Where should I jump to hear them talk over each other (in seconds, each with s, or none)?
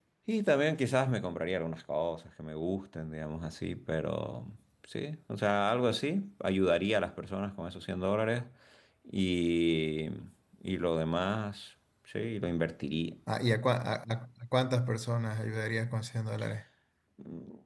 none